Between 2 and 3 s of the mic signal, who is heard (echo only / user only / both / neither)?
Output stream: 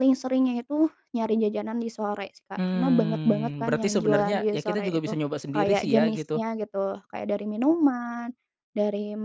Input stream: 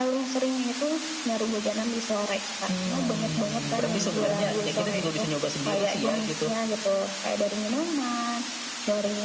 echo only